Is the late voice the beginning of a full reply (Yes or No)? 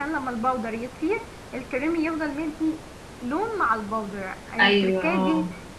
No